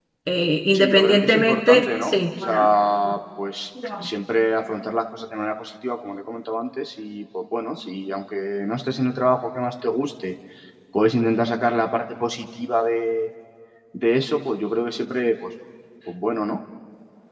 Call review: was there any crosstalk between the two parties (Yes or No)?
Yes